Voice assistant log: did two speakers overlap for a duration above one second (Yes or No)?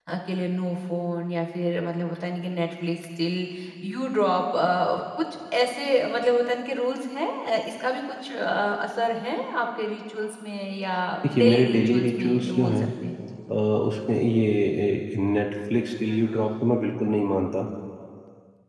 Yes